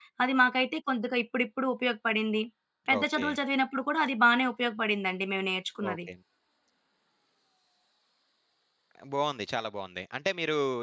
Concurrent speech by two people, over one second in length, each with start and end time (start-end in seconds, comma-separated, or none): none